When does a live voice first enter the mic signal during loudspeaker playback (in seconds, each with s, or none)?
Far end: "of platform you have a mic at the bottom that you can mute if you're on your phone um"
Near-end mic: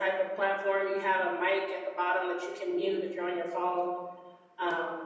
none